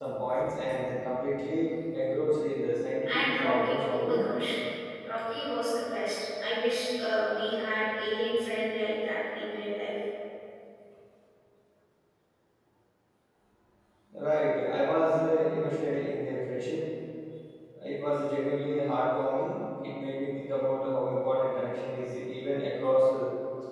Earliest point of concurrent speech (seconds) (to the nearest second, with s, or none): 3 s